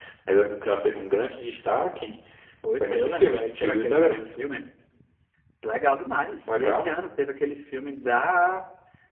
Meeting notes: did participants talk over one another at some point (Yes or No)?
Yes